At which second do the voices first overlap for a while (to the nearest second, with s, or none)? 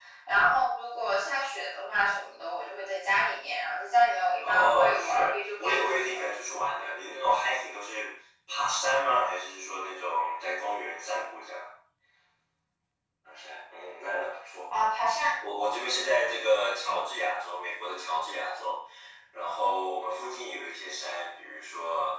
4 s